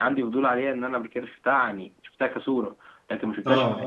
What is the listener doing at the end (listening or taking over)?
listening